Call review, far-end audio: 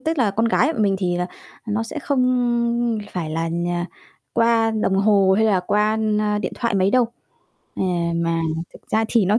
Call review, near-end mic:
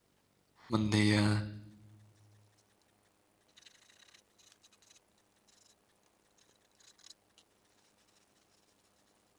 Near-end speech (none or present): present